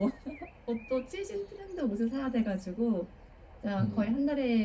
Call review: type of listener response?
listening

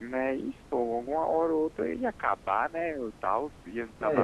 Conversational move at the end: taking over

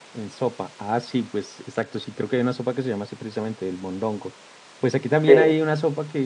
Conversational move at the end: listening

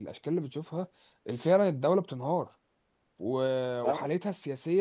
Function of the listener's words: listening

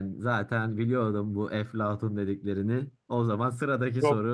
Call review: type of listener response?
taking over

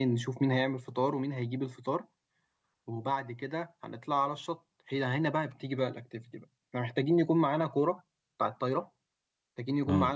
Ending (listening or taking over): listening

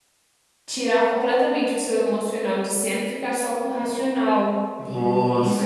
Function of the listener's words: taking over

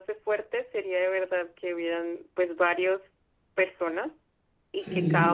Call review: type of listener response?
listening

